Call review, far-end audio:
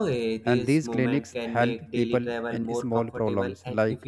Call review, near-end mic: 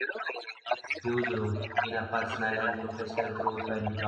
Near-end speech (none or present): present